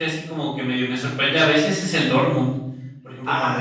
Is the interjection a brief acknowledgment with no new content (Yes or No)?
Yes